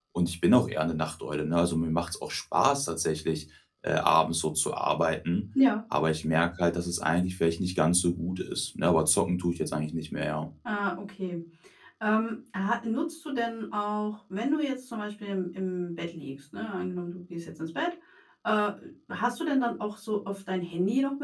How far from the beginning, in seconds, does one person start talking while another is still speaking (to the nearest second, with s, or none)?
none